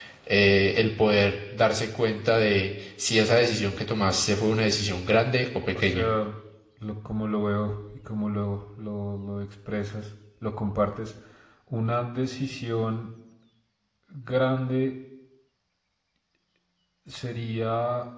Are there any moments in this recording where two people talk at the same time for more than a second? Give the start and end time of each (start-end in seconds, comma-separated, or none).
none